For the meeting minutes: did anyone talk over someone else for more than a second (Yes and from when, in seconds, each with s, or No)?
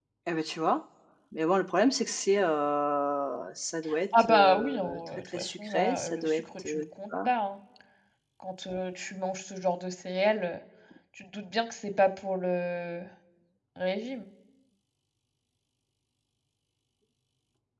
Yes, from 4.1 s